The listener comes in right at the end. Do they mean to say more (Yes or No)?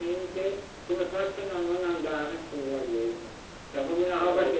Yes